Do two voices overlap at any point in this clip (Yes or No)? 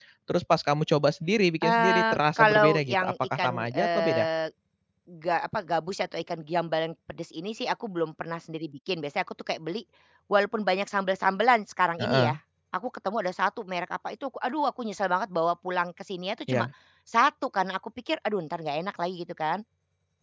Yes